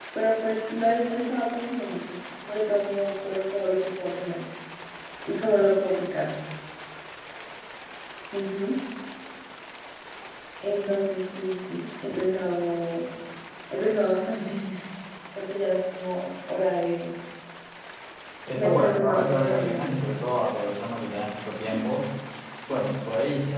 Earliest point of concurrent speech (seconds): 19 s

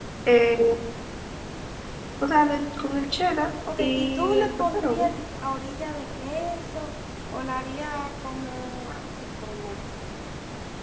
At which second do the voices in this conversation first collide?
4 s

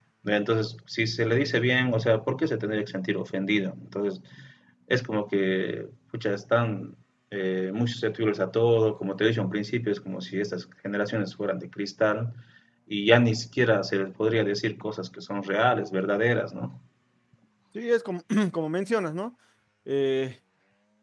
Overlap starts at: none

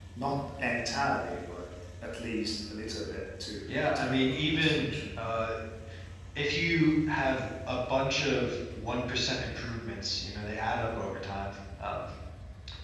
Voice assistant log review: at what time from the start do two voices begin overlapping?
4 s

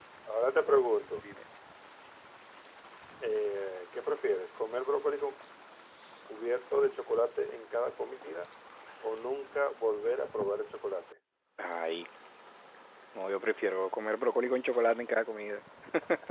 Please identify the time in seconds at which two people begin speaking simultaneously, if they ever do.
none

